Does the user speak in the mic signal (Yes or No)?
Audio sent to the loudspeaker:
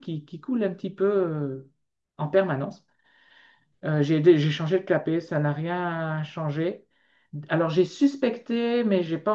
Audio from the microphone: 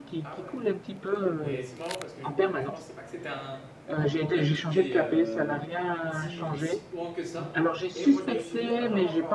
Yes